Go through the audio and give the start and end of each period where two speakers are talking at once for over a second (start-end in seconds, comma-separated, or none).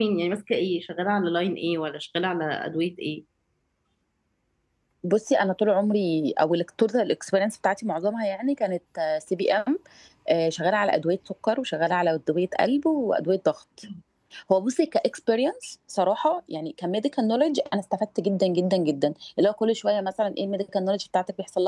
none